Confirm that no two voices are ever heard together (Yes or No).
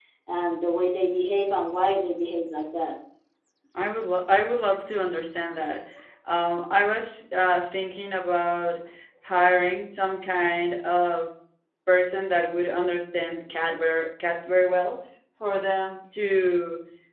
Yes